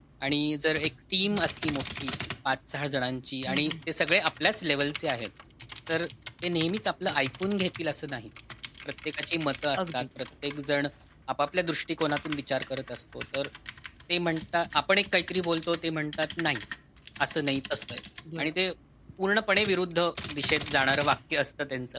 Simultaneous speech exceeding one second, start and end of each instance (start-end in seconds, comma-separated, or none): none